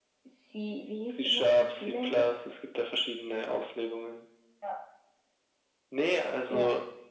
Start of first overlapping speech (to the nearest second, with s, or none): 1 s